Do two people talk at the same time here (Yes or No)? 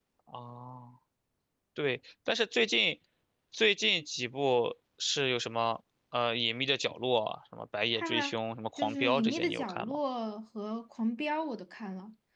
Yes